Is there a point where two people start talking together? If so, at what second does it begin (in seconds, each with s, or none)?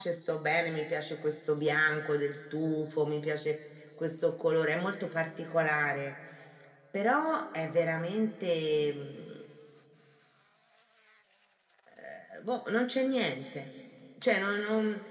none